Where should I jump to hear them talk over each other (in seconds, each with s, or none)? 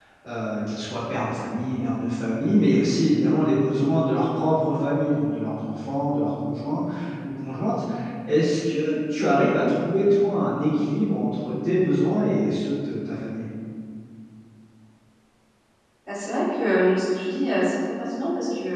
none